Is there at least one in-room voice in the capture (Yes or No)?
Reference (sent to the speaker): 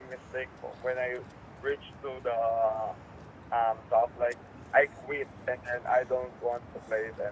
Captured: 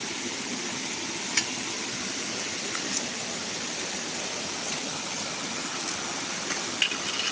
No